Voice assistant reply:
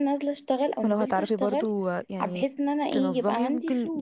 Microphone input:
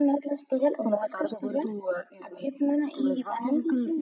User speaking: No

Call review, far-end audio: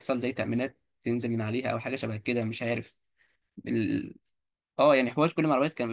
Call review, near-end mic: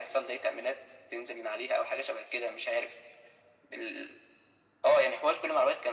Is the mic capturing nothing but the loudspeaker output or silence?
Yes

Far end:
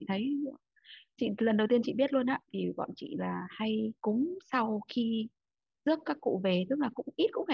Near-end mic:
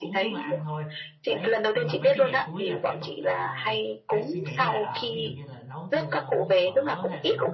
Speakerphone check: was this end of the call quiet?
No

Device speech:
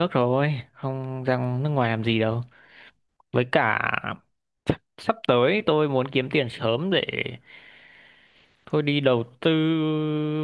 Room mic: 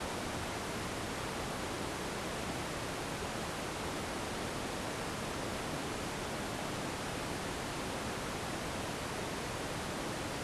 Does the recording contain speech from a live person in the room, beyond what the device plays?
No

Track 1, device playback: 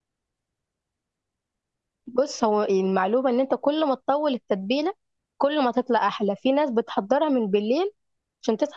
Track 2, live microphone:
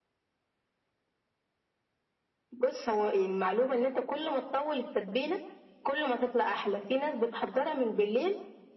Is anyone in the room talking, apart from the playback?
No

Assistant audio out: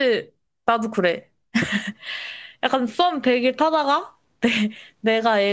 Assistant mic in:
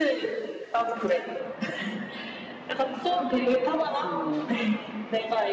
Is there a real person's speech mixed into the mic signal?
Yes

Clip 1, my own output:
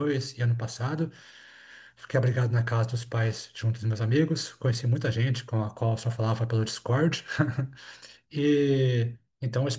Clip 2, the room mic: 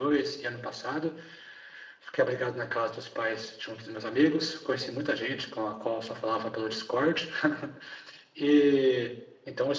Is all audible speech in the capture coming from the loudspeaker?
Yes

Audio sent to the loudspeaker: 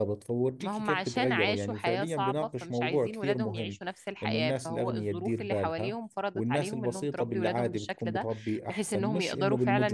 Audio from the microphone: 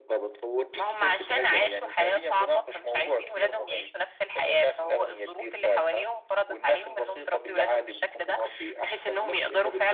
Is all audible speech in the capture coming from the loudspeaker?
Yes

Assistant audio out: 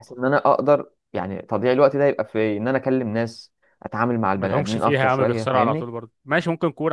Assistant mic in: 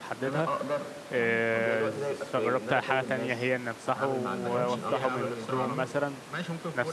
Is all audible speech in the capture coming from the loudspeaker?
No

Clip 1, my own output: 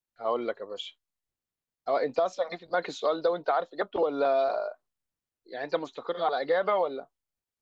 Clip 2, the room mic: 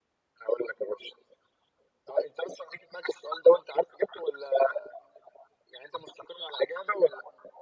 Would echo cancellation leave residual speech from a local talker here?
No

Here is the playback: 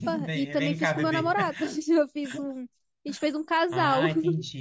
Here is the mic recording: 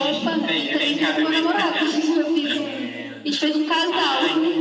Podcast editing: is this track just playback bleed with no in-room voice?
No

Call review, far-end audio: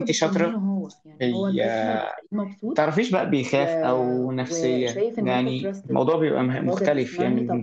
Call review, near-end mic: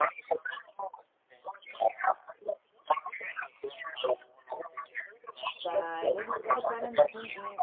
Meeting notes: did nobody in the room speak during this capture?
No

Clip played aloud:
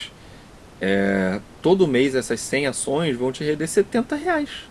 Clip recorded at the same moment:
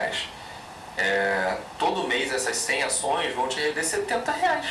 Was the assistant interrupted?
No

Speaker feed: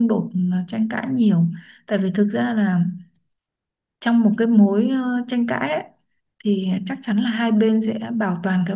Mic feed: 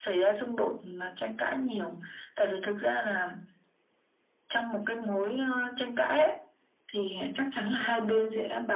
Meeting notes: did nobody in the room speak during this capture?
Yes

